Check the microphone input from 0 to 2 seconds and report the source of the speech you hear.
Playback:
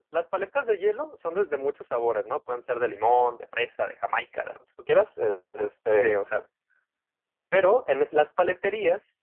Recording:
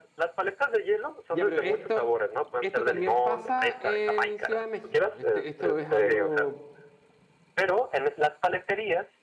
both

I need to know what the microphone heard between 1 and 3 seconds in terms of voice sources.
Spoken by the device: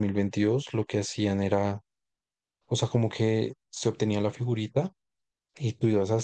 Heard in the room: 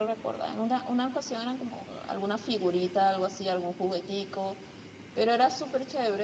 user only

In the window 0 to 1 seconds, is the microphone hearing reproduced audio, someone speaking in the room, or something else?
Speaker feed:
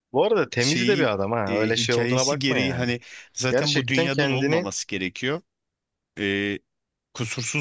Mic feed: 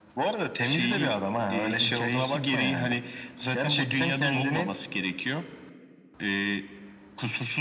echo only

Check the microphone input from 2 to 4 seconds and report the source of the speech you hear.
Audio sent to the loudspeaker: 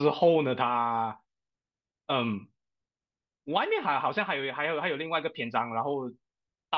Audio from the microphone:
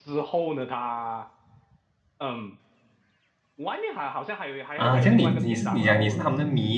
echo only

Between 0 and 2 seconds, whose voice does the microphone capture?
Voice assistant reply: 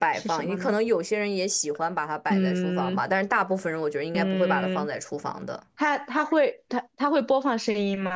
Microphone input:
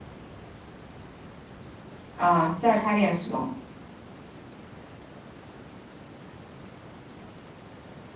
neither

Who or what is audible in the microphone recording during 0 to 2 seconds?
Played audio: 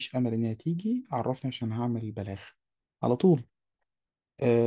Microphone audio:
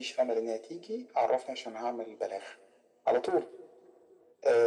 echo only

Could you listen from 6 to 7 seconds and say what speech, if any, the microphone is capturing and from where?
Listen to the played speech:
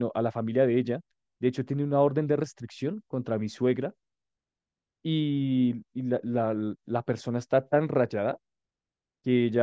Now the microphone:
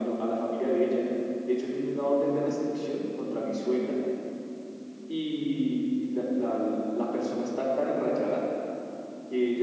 echo only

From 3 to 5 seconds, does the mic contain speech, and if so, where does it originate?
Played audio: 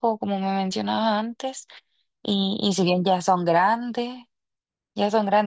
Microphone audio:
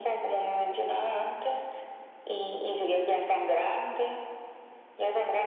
echo only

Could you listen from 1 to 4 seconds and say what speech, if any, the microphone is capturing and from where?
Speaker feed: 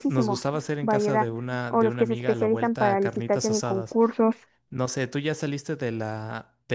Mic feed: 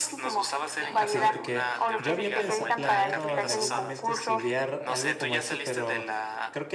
both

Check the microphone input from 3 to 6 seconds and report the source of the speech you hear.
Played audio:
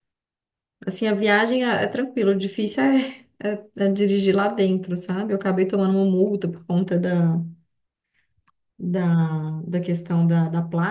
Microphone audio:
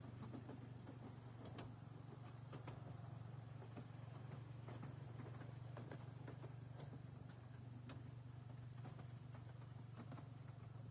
neither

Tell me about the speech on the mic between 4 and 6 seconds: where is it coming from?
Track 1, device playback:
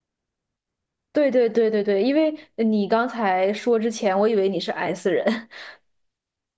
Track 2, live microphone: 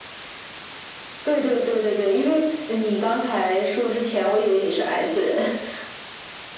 echo only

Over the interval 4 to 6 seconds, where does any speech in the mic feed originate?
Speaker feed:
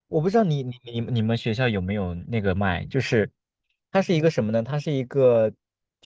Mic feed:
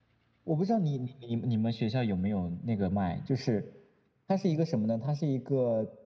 echo only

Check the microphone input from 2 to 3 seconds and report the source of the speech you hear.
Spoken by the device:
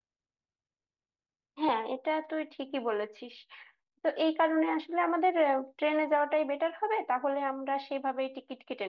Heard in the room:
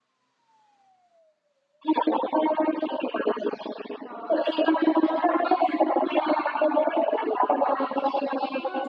echo only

